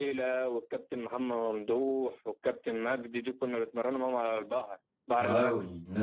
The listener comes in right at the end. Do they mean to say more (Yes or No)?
Yes